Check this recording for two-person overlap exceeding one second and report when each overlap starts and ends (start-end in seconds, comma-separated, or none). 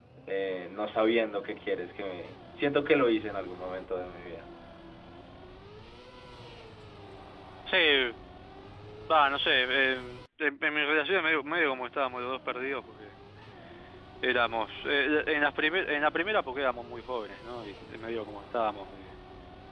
none